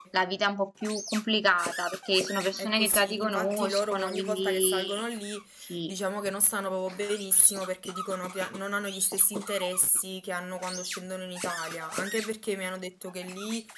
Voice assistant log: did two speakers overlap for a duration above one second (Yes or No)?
Yes